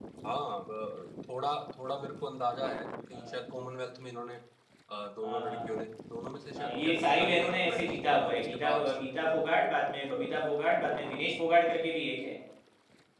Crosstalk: present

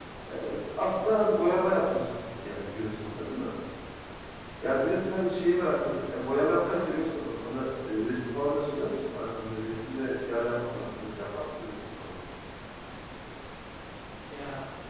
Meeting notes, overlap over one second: none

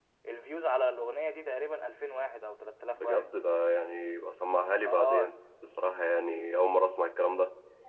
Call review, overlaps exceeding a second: none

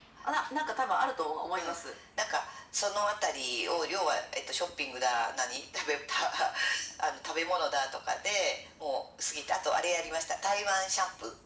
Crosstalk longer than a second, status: none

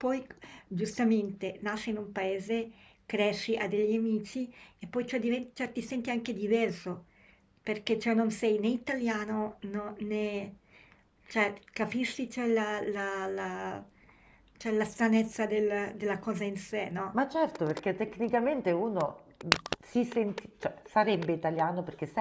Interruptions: none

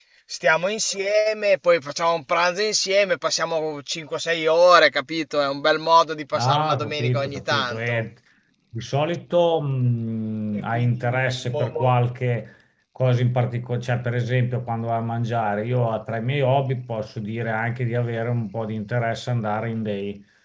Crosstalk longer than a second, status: present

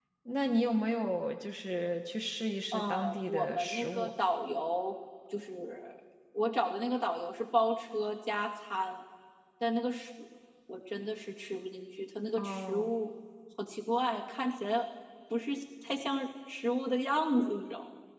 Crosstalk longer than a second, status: present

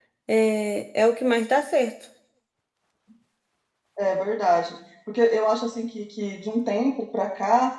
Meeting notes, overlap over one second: none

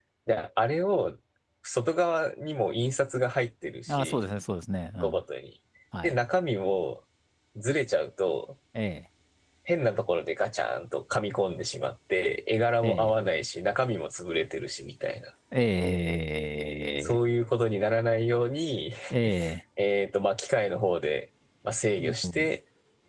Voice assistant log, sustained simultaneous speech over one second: none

